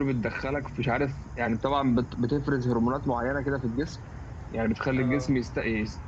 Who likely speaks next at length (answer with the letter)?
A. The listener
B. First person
B